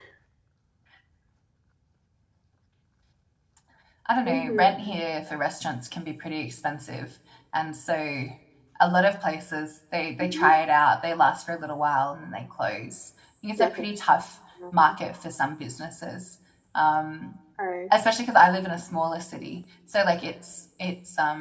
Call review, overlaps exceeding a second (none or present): none